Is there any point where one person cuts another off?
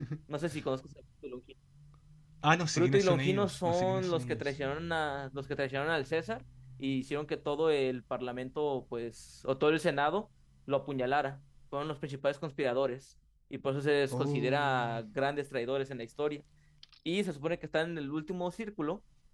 Yes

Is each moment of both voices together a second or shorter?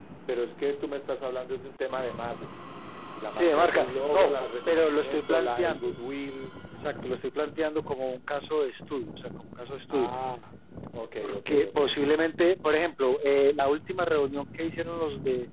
No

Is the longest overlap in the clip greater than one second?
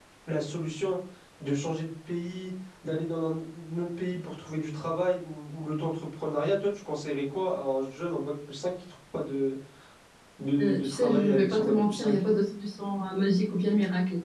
Yes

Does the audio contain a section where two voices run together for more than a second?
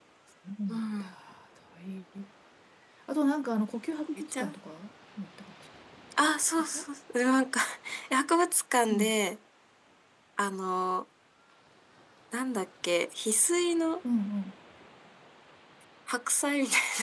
No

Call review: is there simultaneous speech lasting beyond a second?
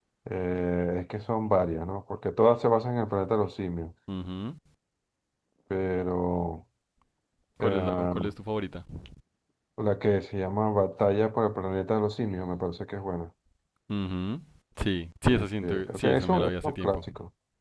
Yes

